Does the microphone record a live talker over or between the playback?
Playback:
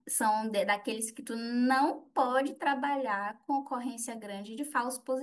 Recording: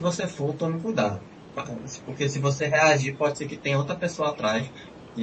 Yes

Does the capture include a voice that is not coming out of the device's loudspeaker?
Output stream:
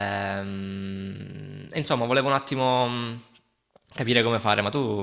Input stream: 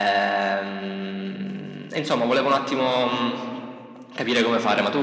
No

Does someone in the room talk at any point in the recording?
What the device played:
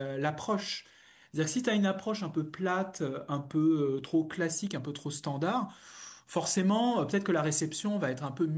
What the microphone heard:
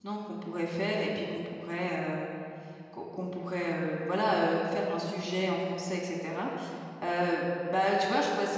Yes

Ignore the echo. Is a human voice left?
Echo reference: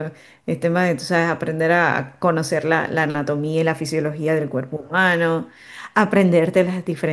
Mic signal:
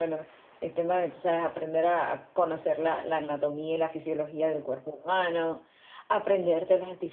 No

